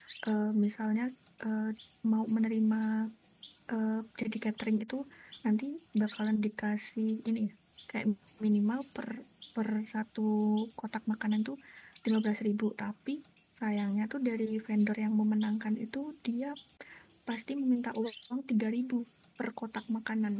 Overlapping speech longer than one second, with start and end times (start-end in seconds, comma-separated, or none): none